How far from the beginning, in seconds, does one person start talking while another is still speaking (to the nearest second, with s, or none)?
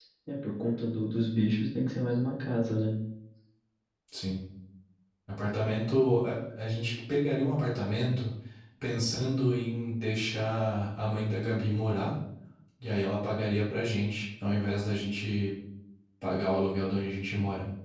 none